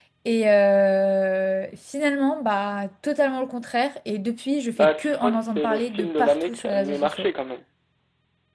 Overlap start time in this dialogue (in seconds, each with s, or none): 4.8 s